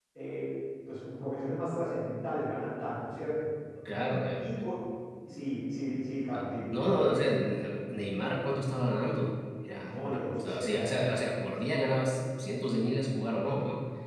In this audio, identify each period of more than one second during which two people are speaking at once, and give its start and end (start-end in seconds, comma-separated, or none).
9.9-11.2